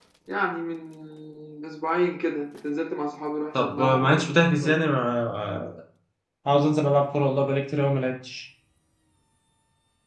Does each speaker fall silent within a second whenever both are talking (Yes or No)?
No